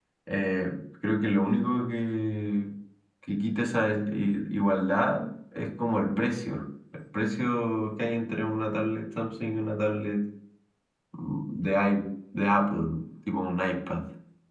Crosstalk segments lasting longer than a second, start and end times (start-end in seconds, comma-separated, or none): none